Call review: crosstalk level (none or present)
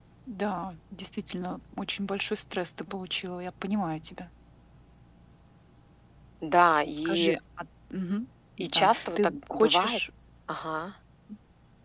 present